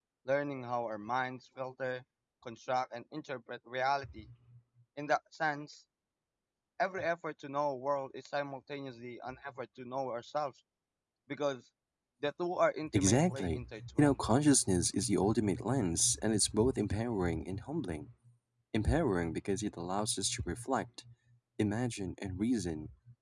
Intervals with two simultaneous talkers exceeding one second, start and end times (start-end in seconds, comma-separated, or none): 12.9-14.2